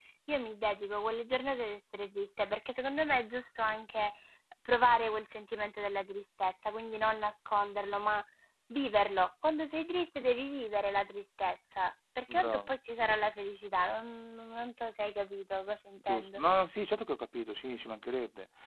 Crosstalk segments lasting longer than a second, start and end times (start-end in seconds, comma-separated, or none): none